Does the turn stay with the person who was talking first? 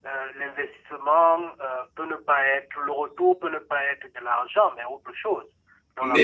No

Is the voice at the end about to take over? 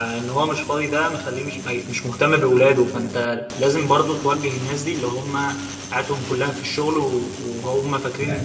No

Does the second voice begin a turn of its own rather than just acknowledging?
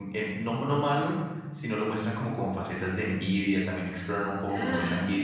No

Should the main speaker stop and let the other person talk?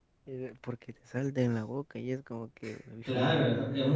Yes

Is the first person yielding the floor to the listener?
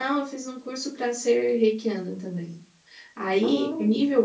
No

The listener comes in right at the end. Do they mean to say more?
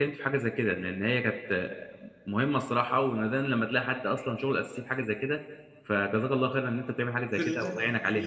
Yes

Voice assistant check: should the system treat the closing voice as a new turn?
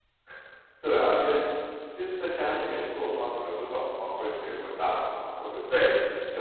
No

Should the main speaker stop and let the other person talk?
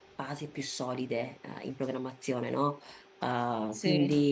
No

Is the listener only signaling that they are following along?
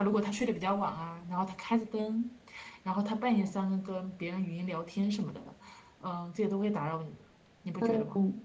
No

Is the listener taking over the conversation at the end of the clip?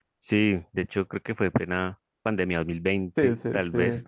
Yes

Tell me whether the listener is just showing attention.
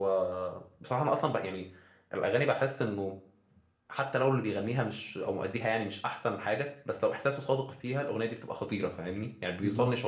No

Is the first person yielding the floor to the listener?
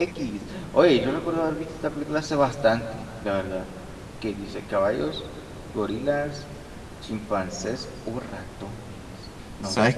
Yes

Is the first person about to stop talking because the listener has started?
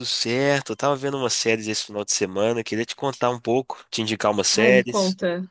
Yes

